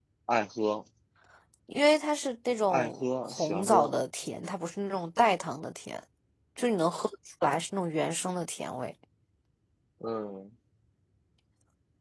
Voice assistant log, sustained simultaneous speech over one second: present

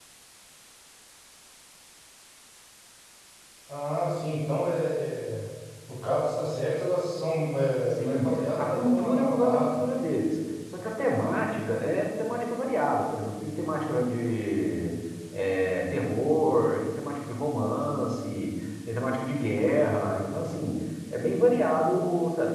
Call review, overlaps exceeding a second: present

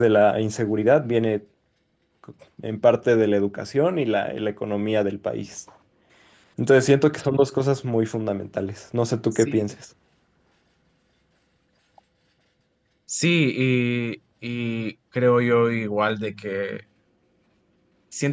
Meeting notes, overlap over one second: none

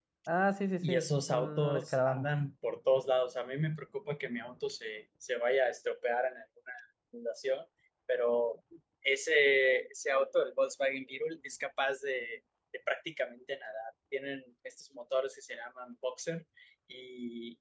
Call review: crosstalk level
present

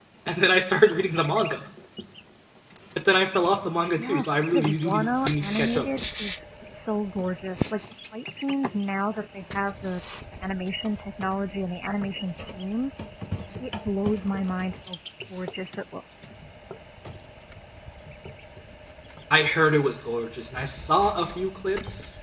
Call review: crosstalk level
present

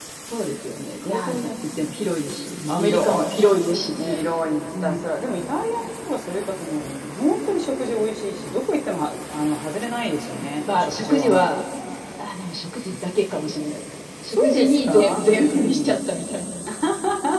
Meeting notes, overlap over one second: present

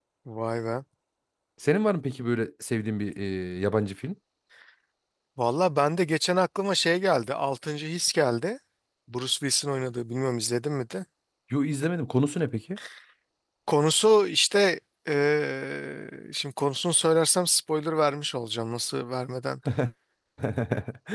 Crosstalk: none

